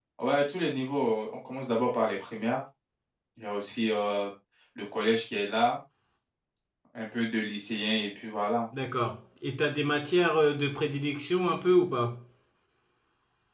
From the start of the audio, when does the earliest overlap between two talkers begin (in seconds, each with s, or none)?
none